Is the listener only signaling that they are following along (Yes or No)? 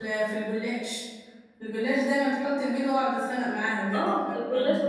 No